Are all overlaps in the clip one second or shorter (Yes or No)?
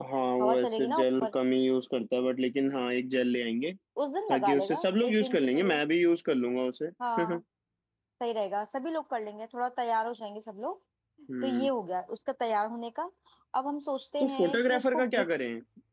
No